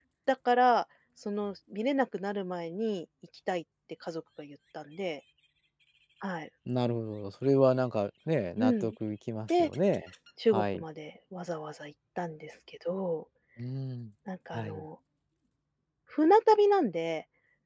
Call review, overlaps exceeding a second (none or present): none